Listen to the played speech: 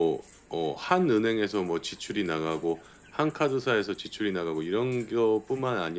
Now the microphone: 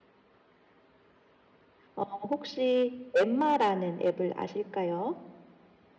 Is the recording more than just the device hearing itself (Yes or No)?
Yes